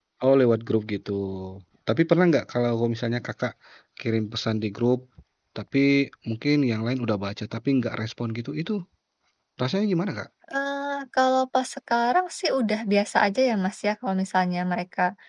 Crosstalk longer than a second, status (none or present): none